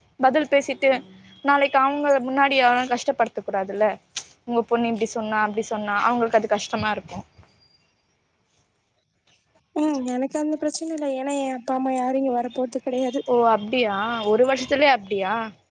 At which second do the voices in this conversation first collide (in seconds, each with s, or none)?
none